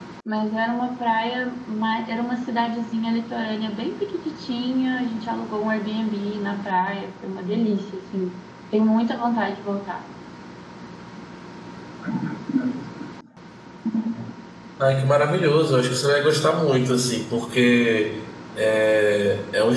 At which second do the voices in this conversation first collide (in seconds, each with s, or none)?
none